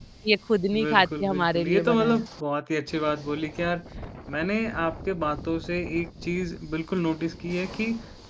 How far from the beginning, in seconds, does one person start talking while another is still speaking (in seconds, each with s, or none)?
0.8 s